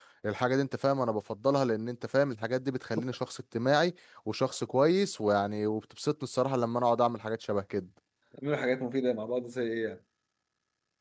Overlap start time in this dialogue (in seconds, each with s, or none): none